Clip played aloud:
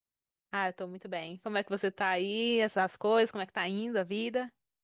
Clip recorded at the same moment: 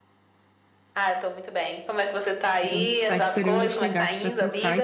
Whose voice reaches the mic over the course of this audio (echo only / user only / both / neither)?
both